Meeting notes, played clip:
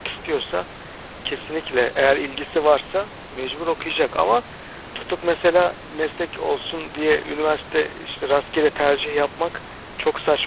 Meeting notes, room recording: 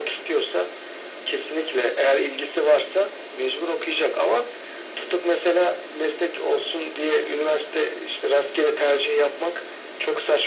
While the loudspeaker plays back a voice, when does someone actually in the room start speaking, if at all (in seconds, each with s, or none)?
none